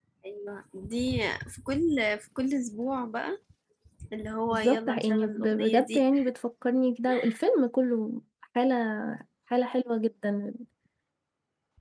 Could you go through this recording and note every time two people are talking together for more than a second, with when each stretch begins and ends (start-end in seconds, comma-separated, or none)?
4.5-6.0